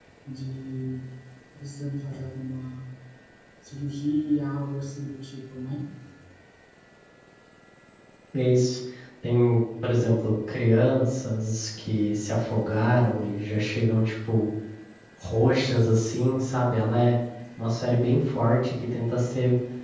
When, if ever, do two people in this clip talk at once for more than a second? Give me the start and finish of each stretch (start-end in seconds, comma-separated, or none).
none